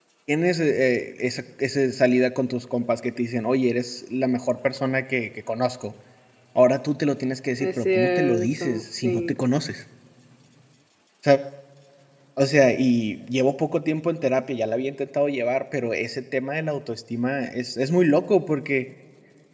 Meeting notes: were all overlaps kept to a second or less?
No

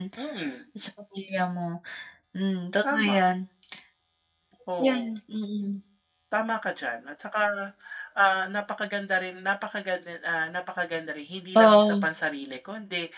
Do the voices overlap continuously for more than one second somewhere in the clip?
No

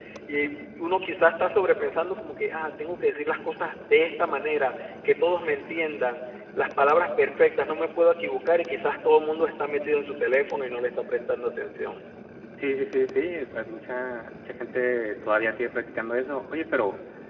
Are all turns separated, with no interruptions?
Yes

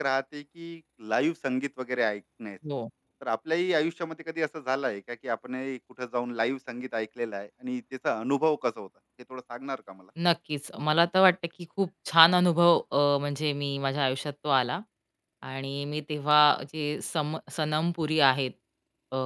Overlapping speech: No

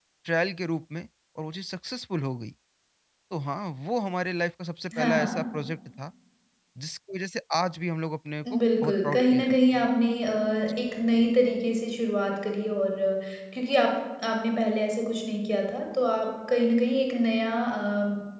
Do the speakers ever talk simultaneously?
Yes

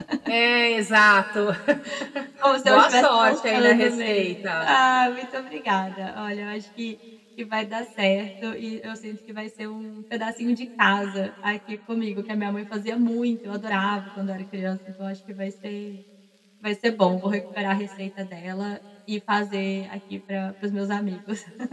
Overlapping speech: Yes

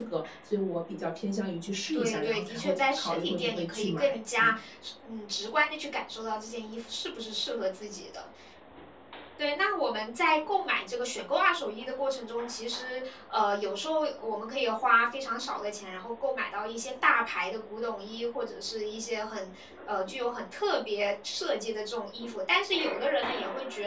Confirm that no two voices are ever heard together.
No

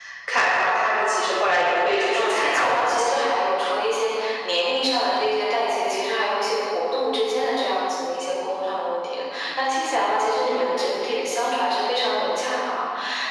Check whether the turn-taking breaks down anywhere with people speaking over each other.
Yes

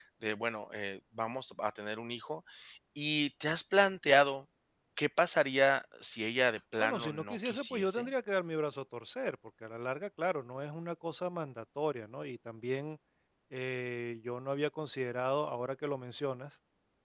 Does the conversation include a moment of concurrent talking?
Yes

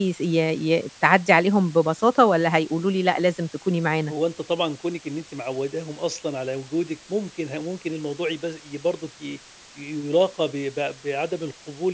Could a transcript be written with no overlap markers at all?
Yes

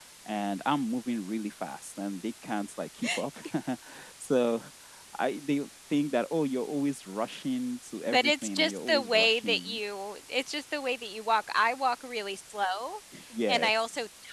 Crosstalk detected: Yes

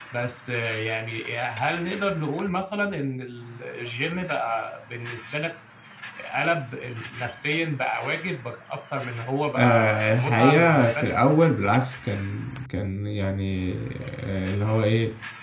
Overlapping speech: Yes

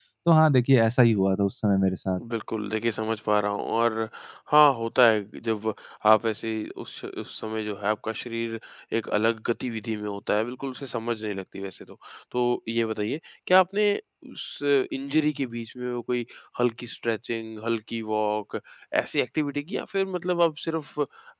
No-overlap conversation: Yes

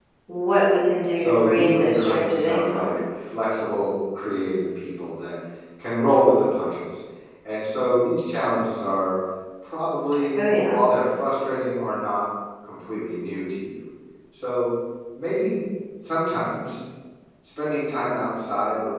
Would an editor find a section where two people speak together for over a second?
Yes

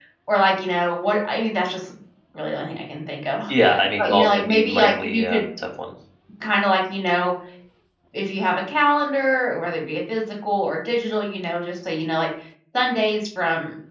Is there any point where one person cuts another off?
Yes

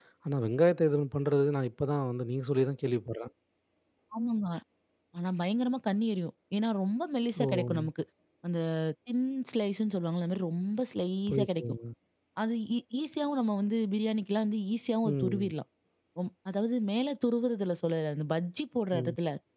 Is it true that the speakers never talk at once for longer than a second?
Yes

